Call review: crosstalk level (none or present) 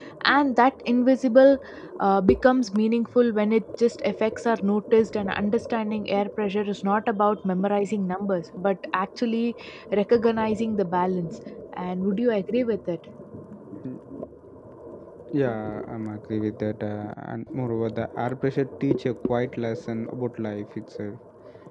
none